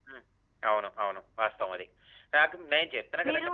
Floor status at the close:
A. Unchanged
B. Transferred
A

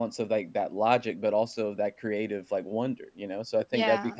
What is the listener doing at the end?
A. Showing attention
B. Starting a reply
A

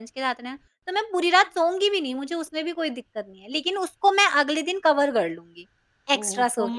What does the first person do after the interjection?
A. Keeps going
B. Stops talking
B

